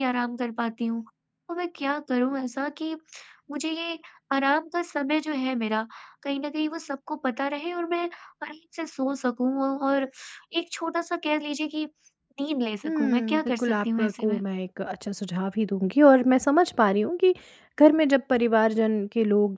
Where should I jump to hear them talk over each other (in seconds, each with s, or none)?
12.8 s